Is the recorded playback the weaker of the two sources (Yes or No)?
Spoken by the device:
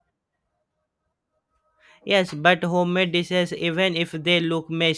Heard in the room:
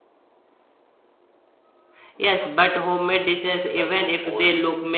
No